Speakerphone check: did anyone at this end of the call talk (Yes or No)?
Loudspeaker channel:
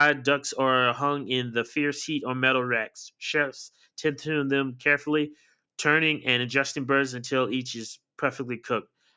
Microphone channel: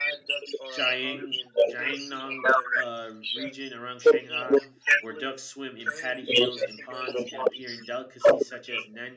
Yes